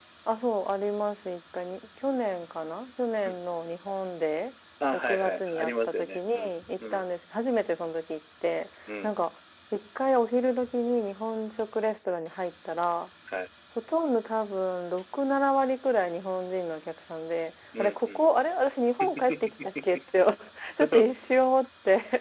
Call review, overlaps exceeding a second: present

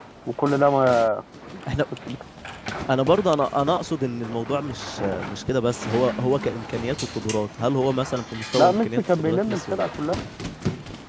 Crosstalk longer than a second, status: present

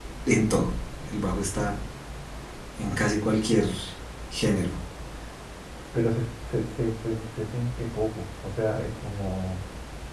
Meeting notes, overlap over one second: none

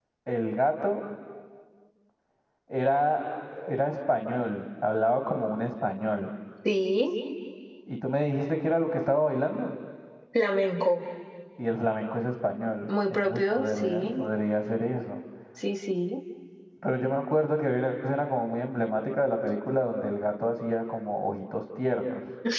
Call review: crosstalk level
present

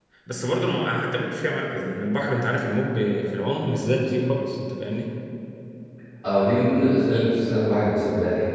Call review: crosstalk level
none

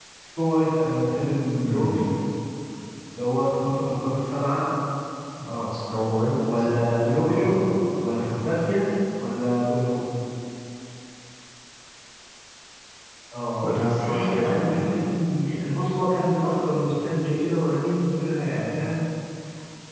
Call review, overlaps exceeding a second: present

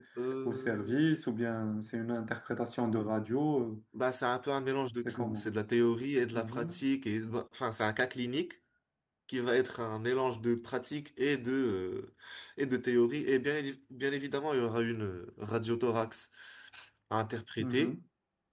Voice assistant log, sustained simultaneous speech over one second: none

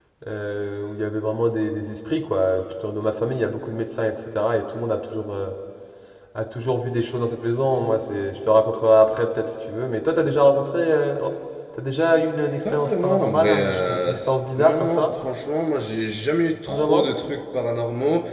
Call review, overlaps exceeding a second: present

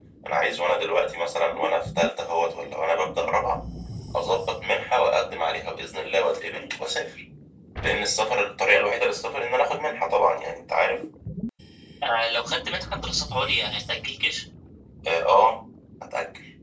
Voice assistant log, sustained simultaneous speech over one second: none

